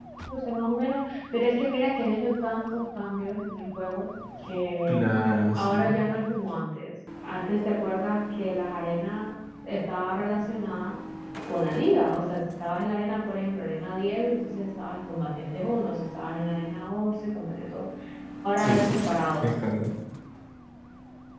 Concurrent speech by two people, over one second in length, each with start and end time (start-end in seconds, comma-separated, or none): none